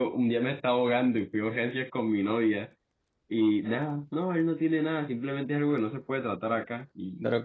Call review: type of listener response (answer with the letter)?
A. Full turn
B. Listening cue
A